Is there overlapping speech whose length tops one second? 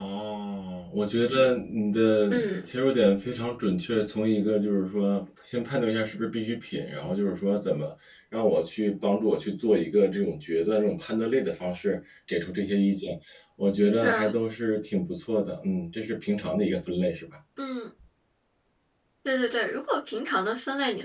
No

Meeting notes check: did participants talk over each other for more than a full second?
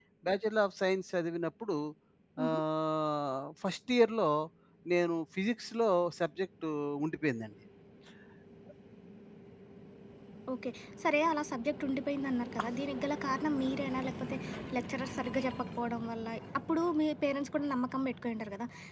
No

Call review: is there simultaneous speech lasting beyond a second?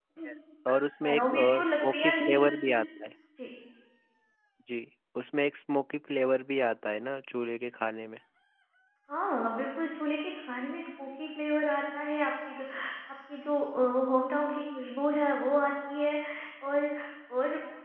Yes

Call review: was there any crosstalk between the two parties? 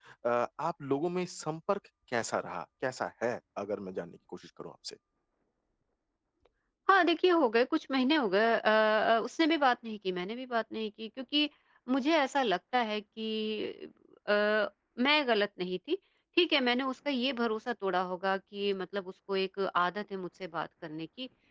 No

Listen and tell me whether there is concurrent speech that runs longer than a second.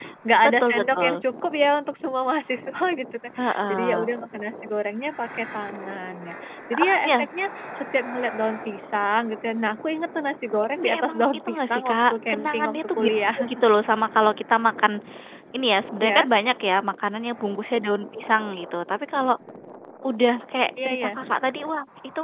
Yes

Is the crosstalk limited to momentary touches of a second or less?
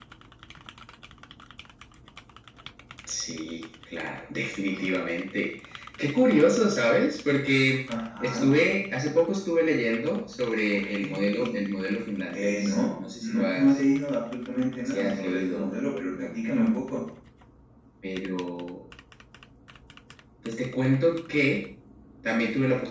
No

